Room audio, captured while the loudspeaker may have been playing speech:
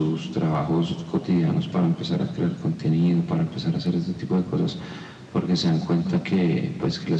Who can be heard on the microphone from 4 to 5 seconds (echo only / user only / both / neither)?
echo only